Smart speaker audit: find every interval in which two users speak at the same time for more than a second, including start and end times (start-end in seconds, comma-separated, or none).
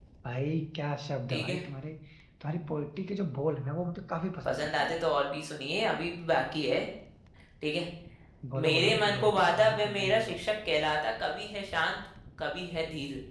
8.7-10.4